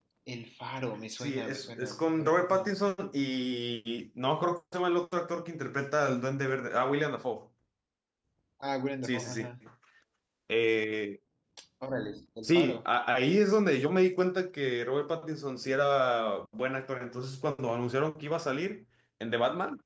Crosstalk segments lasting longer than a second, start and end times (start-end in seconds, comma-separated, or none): 1.2-2.7